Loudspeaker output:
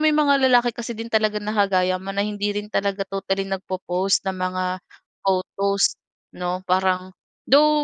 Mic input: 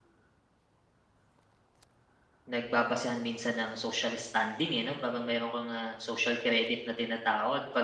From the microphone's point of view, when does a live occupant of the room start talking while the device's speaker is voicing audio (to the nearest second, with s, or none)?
2 s